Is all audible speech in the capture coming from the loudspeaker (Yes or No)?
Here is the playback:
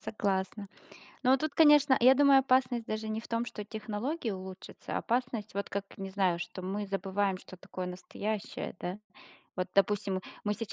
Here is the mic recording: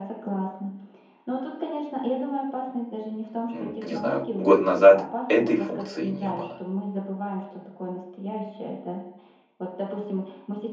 No